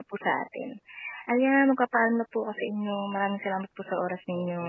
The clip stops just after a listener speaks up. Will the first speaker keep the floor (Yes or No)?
No